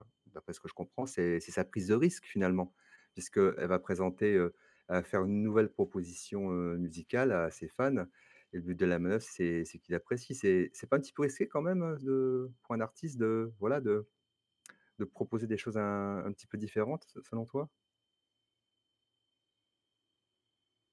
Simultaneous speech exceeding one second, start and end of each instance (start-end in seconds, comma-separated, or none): none